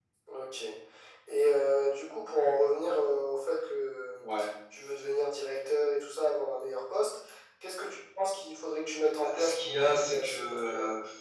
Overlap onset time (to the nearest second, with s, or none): 9 s